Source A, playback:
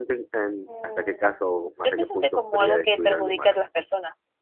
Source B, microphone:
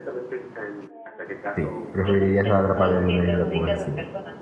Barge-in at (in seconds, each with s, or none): 1.5 s